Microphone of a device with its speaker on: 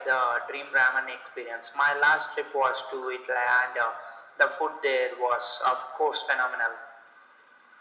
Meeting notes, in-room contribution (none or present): none